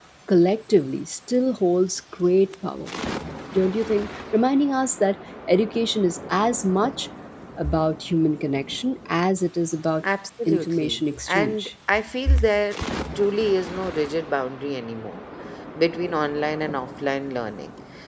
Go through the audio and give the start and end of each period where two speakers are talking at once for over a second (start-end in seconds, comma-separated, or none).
10.5-11.7